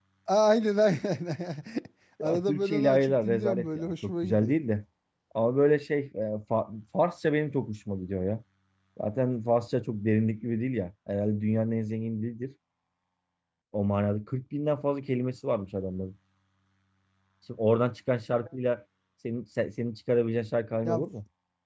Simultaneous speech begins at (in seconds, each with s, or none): 2.2 s